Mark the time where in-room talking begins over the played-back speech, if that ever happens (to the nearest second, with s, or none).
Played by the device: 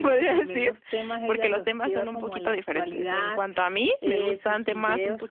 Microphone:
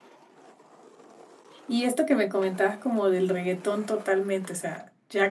2 s